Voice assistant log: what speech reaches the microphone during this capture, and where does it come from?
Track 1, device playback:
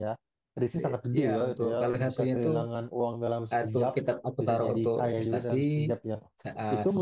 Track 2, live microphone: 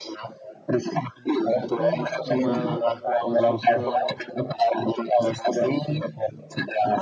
both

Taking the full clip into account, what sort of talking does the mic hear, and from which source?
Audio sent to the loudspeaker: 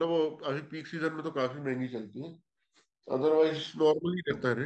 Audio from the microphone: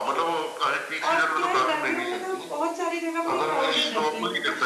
both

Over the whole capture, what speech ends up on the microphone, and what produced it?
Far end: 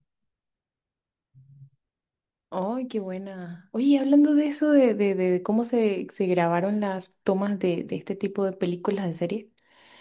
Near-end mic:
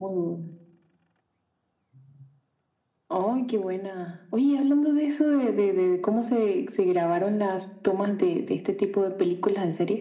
echo only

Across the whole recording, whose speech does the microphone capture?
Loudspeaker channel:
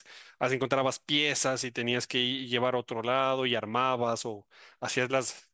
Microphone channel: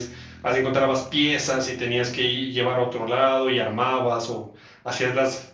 echo only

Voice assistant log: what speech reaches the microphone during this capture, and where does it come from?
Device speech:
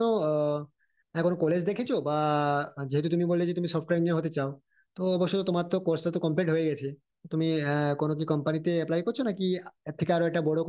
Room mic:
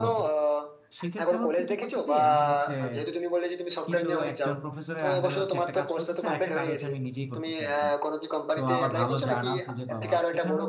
both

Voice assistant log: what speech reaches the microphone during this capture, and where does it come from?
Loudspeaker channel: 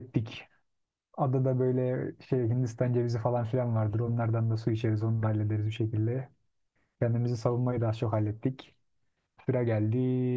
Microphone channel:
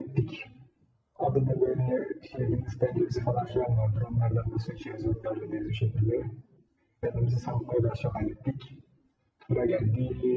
echo only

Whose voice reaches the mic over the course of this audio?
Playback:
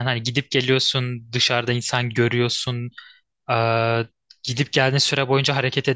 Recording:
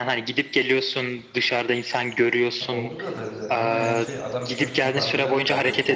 both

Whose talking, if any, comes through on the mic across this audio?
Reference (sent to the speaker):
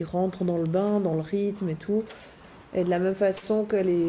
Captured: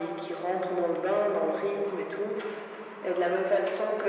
echo only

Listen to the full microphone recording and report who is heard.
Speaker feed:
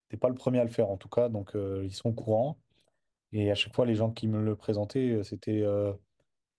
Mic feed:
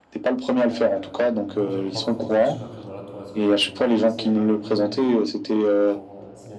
both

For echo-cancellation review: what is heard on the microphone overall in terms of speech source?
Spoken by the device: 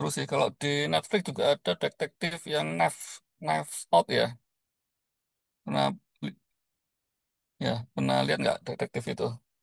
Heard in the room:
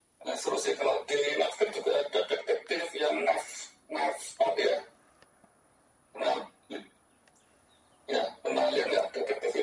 echo only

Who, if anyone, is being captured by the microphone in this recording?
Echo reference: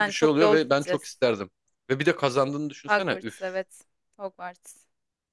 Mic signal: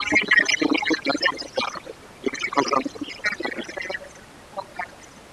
echo only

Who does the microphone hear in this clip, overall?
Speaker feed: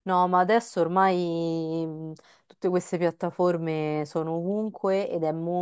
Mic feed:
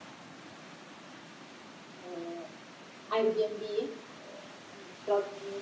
user only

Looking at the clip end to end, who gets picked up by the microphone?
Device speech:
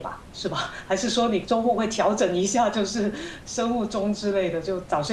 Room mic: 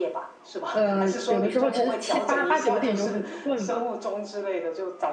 both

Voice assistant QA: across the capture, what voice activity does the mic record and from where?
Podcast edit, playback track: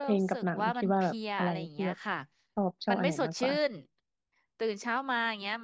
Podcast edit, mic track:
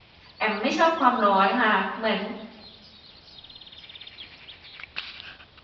user only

